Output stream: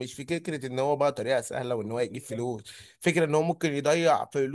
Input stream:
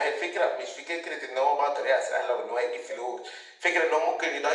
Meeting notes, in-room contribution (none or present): none